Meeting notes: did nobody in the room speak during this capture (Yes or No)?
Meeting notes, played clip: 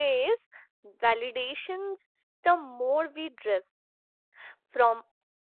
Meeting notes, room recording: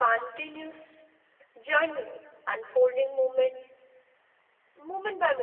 No